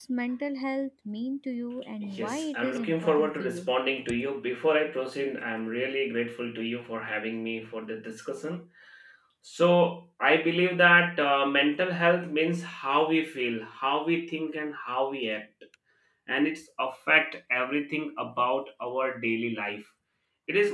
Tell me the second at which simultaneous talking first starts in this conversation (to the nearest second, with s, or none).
2 s